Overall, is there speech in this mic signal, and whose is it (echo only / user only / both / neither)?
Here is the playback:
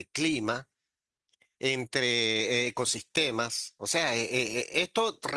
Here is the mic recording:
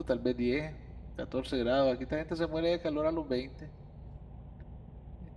user only